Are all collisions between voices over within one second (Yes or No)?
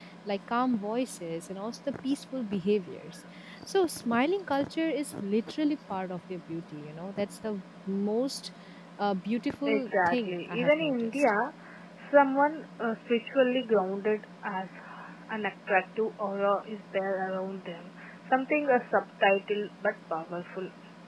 No